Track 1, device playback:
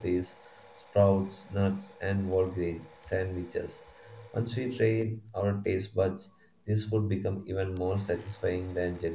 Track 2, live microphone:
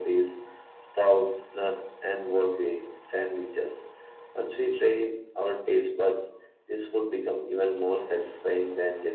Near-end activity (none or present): none